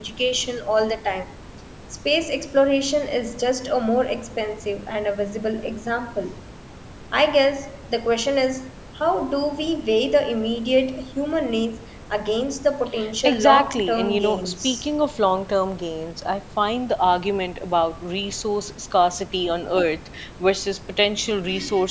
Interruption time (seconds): 13.2 s

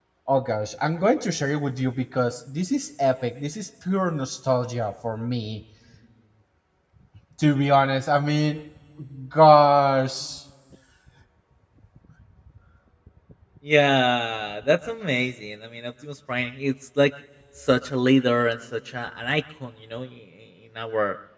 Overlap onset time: none

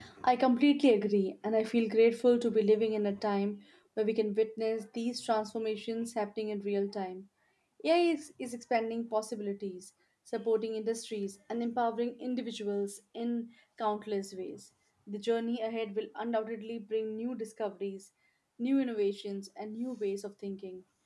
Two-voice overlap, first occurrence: none

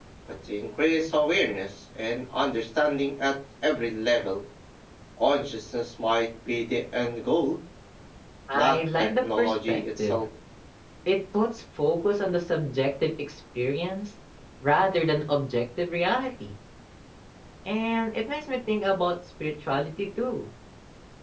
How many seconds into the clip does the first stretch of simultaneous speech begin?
8.5 s

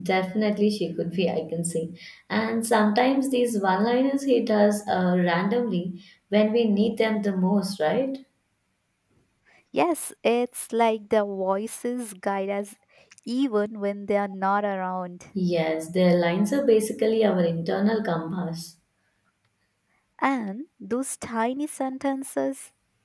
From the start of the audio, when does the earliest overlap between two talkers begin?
none

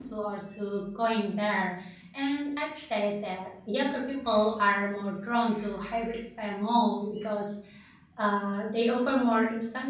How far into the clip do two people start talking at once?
none

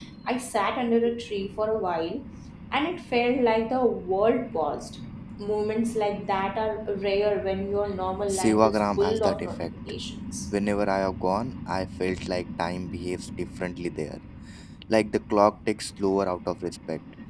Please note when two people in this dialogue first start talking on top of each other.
8.3 s

